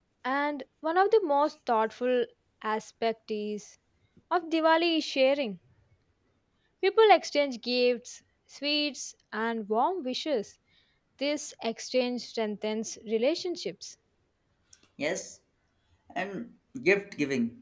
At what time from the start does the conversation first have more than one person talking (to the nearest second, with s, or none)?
none